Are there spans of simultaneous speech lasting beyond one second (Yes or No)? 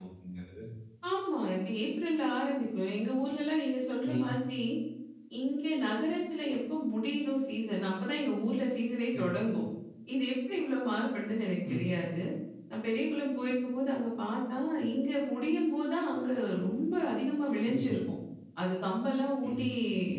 No